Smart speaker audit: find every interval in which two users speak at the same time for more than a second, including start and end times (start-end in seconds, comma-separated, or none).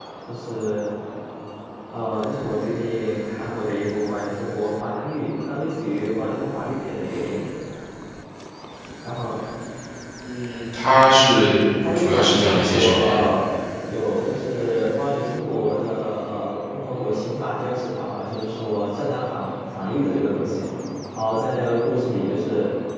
12.0-13.2